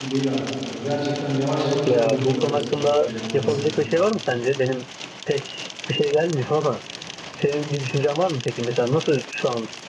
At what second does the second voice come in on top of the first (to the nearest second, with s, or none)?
2 s